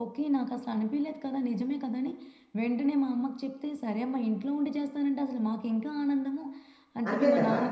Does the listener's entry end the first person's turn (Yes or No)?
No